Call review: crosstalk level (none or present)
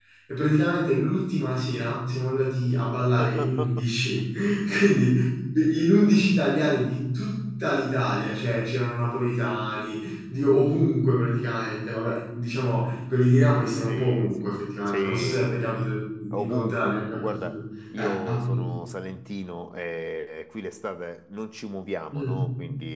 present